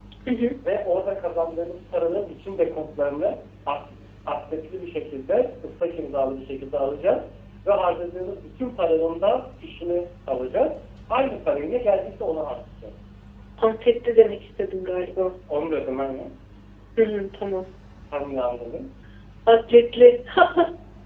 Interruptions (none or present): none